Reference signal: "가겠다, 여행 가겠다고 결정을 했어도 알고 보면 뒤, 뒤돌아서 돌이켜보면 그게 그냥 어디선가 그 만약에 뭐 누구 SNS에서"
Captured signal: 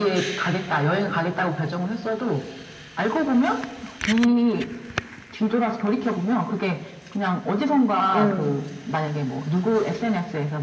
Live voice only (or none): 음,